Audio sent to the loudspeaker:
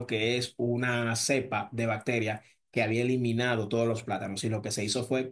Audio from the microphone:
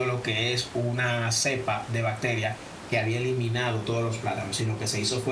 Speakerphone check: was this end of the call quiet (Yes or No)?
Yes